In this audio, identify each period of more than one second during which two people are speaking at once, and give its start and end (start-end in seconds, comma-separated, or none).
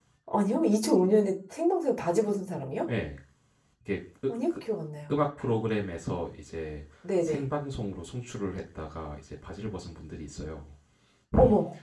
none